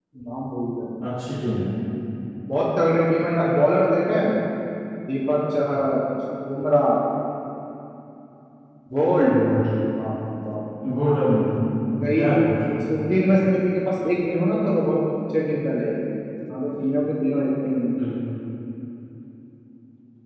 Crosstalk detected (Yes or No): No